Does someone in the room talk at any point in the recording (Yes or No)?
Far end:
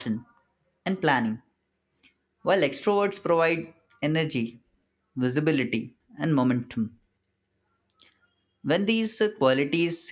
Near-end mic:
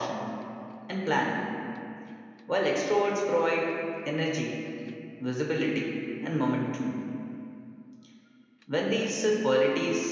No